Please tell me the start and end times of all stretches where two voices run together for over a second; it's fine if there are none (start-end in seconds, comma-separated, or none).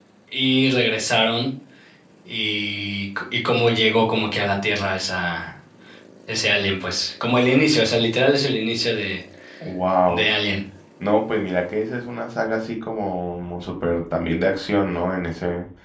none